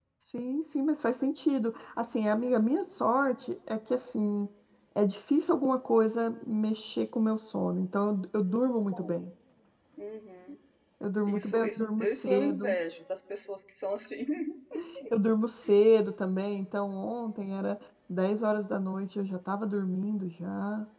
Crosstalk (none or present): present